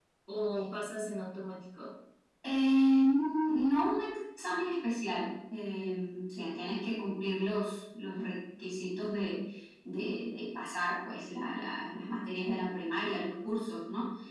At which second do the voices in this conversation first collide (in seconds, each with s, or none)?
none